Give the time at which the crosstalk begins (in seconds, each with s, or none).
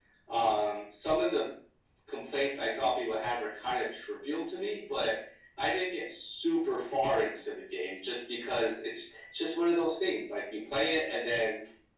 none